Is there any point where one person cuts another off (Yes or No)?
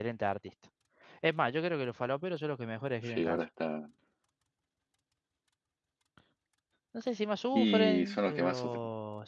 Yes